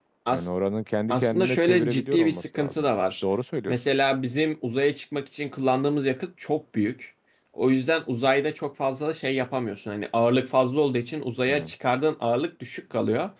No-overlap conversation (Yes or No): No